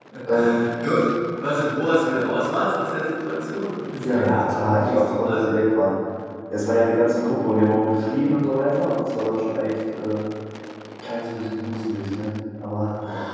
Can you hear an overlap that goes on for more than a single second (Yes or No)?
Yes